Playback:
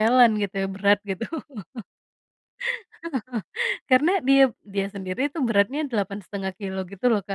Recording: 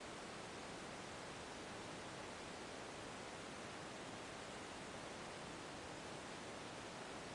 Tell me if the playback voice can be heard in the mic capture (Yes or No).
No